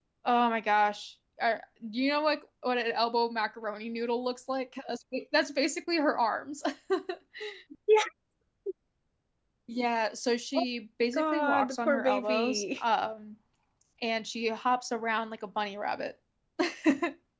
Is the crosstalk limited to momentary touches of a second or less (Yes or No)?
No